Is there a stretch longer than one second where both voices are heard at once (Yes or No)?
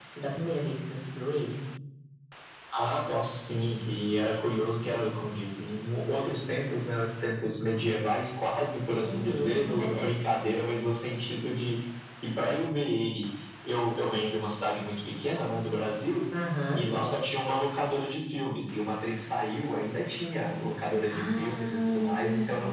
Yes